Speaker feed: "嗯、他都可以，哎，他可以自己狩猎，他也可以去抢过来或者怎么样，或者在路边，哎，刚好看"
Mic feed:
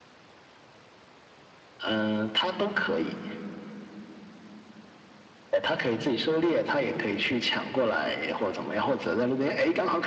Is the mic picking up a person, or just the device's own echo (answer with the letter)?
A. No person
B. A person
A